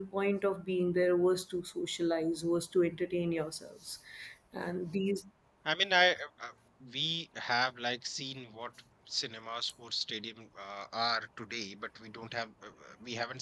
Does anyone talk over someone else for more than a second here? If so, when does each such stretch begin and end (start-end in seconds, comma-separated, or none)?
none